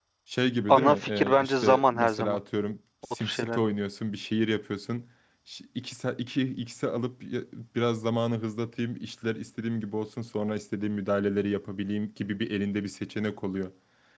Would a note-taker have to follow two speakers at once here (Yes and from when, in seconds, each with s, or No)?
Yes, from 0.7 s